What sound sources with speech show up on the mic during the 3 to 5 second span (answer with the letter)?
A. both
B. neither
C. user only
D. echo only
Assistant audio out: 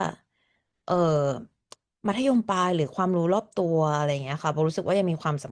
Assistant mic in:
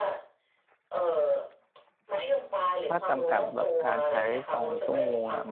A